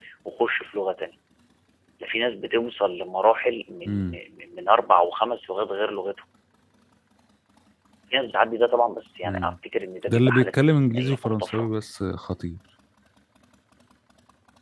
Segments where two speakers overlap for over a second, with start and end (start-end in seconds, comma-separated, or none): 10.1-11.7